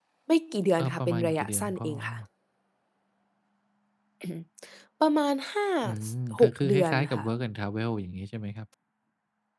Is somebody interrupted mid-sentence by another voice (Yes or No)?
Yes